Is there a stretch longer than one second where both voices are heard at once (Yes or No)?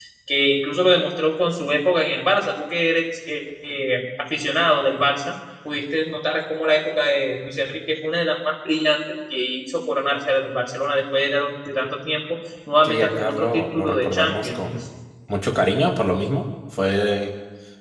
Yes